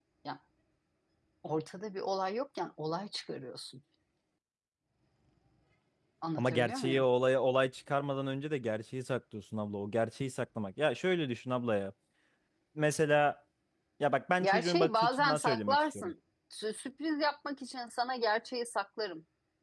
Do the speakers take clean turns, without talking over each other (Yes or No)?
No